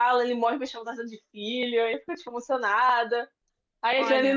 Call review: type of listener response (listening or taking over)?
listening